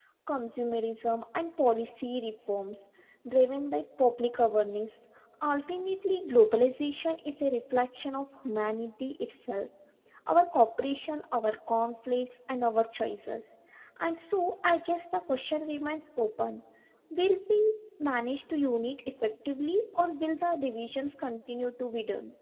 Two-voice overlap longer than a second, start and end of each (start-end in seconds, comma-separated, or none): none